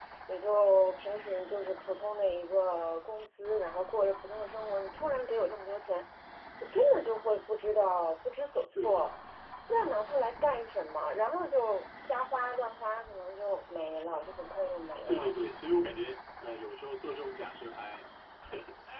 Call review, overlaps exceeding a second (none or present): none